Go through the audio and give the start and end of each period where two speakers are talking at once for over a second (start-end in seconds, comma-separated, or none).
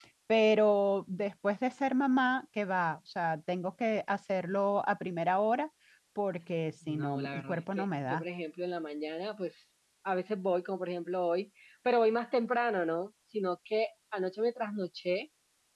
6.9-8.2